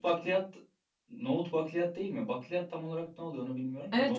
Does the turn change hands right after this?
Yes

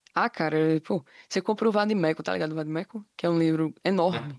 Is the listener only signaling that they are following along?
No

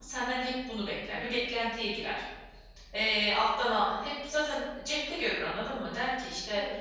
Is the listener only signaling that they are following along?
Yes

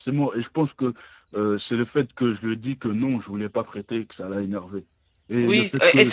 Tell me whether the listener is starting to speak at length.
Yes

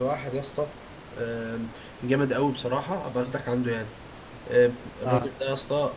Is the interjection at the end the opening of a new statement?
No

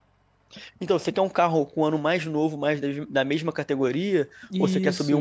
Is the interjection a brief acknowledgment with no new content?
No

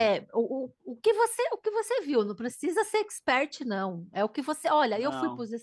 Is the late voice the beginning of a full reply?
No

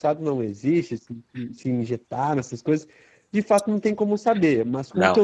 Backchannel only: Yes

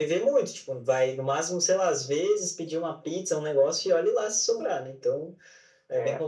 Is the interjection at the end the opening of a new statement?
No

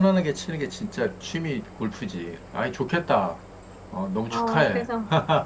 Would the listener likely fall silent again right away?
No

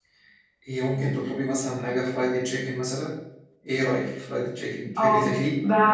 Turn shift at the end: Yes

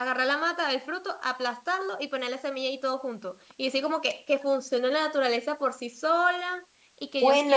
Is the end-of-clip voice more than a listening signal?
Yes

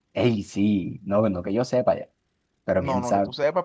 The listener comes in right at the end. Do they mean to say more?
Yes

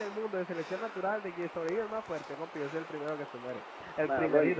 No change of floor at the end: No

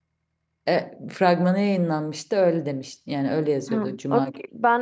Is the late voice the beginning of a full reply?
Yes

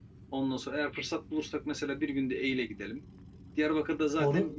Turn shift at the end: No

